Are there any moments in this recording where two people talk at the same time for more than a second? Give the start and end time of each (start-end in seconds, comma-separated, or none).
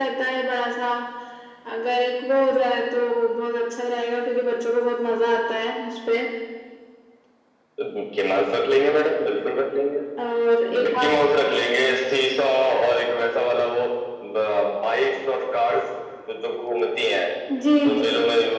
none